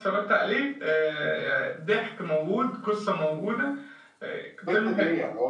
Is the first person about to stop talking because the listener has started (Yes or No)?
Yes